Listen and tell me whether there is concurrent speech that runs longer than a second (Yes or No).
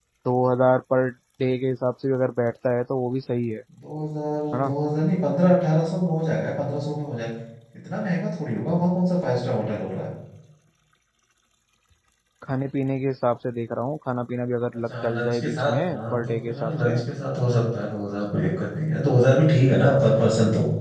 Yes